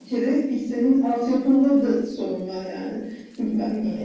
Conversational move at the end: listening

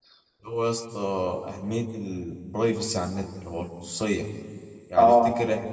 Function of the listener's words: listening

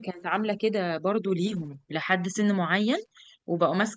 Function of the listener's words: listening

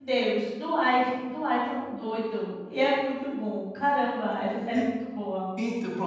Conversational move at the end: taking over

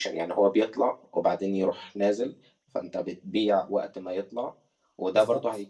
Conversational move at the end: listening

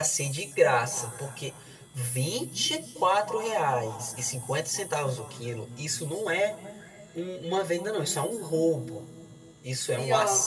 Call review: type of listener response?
listening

